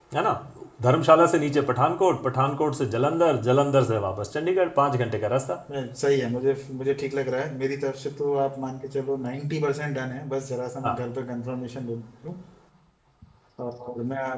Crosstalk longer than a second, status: none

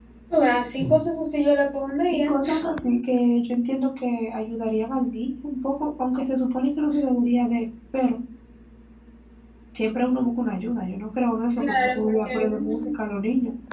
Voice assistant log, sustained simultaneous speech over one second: present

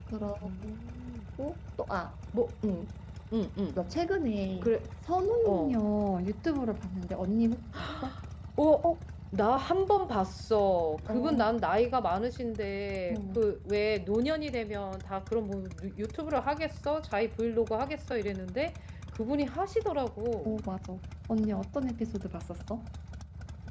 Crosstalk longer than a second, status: none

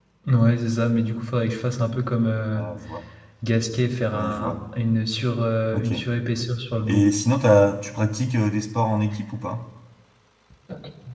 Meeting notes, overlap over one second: none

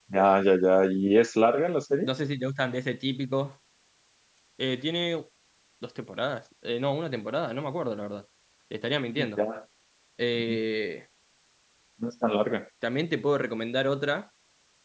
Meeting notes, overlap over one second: none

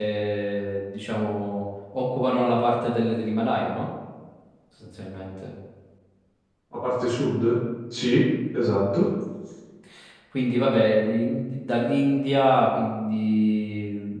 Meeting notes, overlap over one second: none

